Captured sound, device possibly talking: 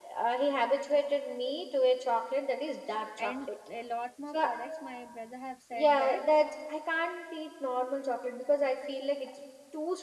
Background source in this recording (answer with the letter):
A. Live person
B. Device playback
A